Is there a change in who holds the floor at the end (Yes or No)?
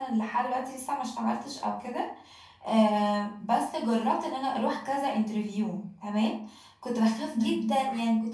No